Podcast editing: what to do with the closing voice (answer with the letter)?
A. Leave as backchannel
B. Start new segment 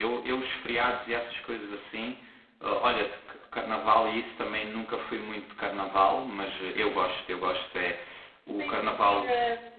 B